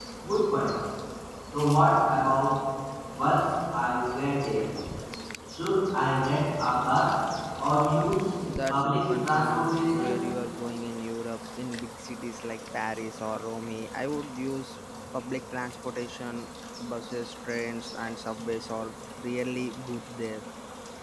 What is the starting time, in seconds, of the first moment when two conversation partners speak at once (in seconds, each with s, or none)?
8.7 s